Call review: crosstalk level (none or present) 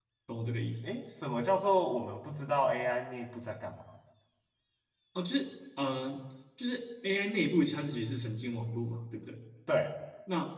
none